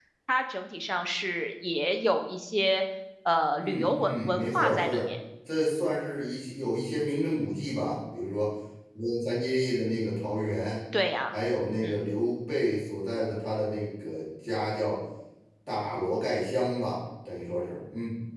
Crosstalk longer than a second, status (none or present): present